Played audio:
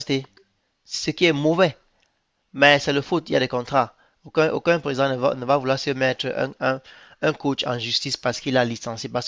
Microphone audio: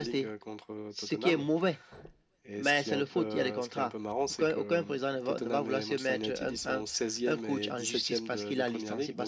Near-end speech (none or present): present